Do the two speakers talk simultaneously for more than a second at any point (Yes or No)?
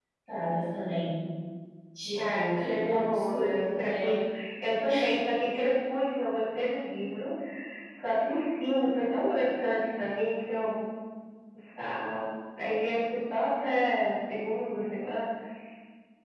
Yes